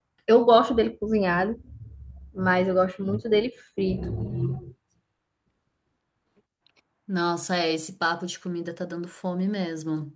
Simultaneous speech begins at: none

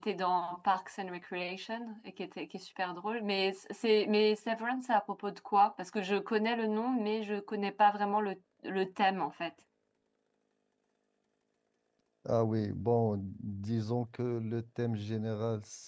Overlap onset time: none

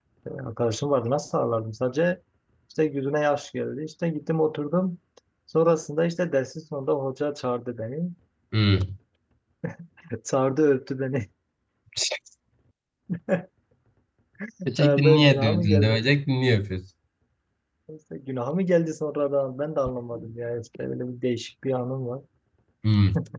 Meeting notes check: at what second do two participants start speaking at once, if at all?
14.8 s

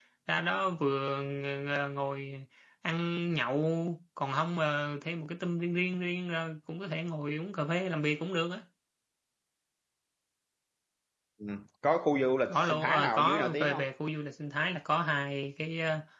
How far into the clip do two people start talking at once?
12.4 s

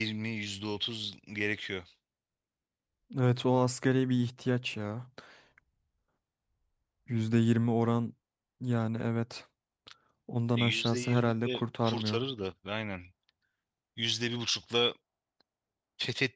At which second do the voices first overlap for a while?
10.6 s

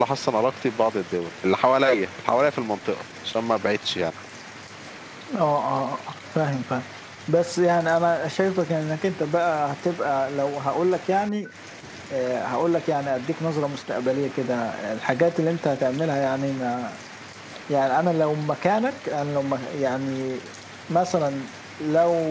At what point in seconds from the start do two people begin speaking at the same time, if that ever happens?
none

